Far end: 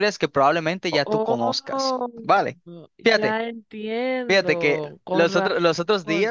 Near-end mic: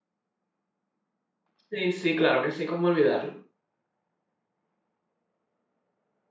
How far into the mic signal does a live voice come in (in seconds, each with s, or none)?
1.7 s